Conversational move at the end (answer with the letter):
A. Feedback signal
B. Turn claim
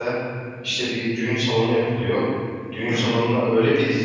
A